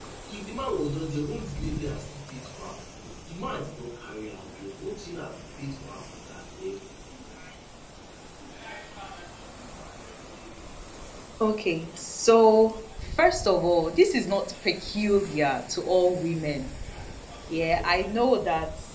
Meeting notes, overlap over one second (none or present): none